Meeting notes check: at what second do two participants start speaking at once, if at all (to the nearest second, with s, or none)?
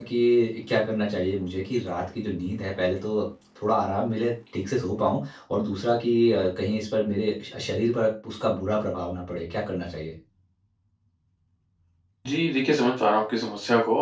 none